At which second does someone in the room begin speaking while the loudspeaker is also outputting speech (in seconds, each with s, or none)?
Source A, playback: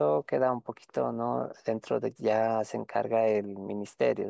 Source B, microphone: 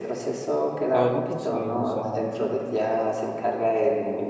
0.9 s